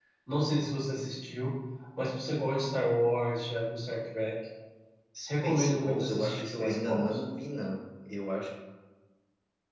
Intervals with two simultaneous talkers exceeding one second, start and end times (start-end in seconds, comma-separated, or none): 5.3-7.2